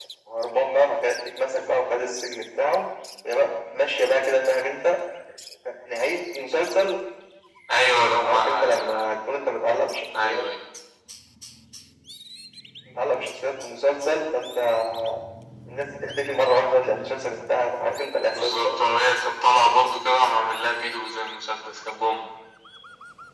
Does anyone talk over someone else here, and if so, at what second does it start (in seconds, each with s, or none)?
7.8 s